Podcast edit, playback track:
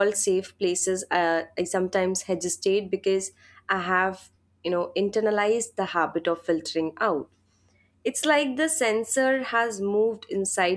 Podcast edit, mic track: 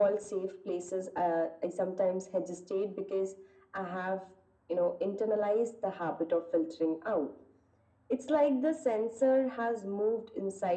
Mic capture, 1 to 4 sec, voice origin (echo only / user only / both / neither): echo only